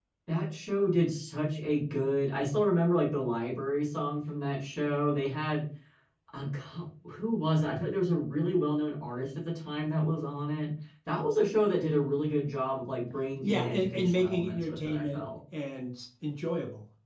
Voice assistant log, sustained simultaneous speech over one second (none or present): present